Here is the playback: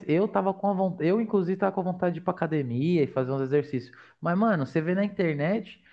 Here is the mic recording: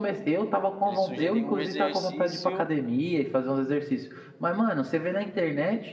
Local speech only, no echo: ele sugeria um exercício

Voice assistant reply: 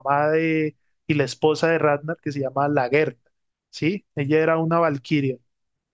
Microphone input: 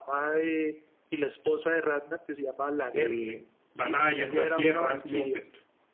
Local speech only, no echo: eh, batallas, nuevas guerras, nuevos te-

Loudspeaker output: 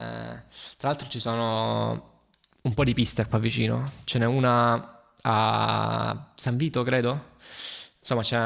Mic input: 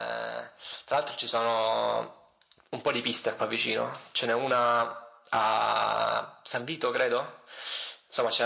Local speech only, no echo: none

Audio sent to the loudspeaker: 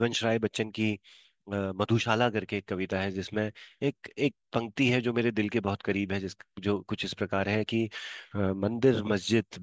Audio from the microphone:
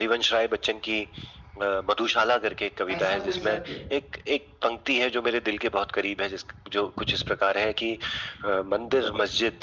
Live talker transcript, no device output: ऐसा कोई सत्य

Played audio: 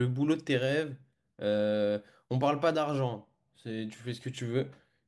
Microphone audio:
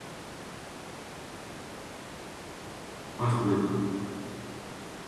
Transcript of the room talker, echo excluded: Ah, ça doit être

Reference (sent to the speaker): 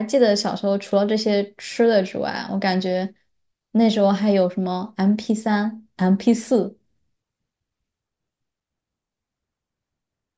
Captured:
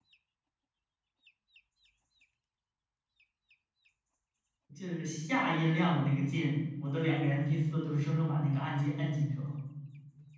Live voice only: 就是下音量的那个键，我的两个 m p 四都是生生把那个按键按进去了，

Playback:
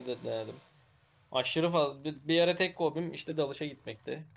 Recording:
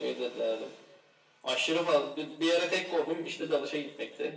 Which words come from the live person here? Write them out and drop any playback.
none

